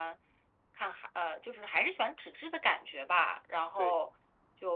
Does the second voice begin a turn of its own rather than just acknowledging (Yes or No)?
No